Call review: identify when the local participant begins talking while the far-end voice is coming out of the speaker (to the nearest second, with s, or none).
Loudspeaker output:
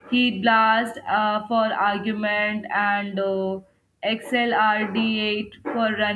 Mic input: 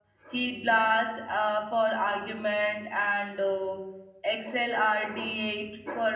none